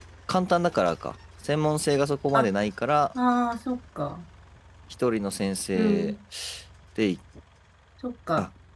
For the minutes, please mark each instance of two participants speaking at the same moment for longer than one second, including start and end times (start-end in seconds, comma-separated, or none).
none